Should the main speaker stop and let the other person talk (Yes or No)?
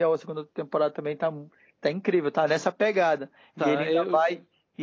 No